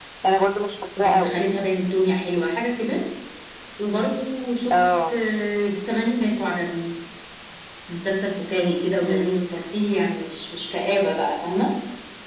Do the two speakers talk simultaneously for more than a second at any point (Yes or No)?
No